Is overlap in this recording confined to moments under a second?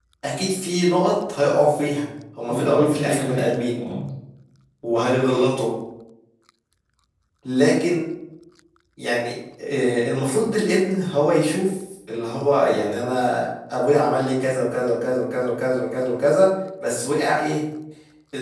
No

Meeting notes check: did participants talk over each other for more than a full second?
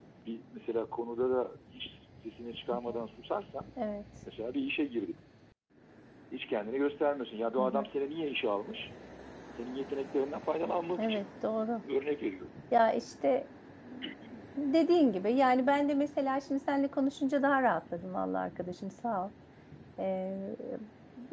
No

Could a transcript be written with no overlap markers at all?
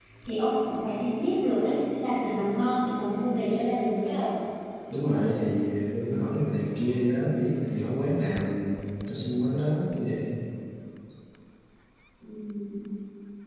Yes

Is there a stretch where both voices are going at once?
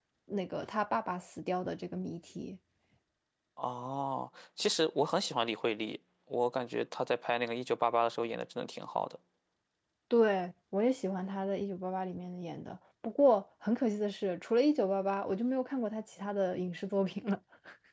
No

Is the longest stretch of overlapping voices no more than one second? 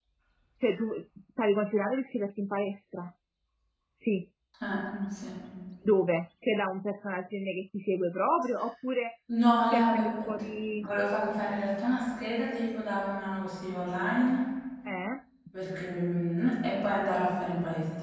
Yes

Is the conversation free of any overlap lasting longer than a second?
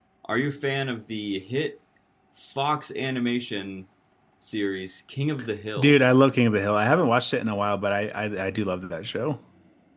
Yes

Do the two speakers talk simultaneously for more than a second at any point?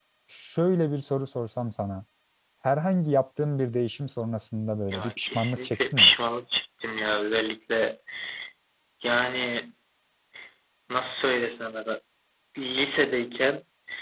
Yes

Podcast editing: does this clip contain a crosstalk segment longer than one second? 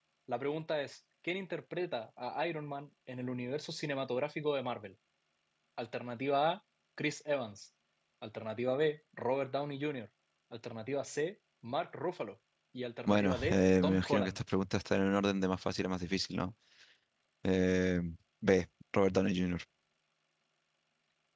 Yes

